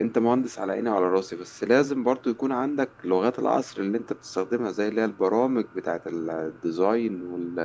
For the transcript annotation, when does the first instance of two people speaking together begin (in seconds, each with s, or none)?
none